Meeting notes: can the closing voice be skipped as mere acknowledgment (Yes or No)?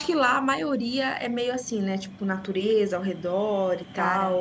No